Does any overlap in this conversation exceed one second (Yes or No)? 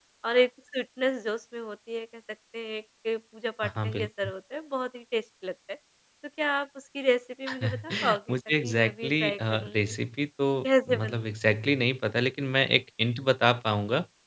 Yes